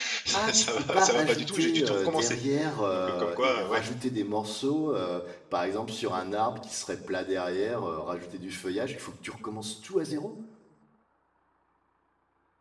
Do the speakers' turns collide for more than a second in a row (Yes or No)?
Yes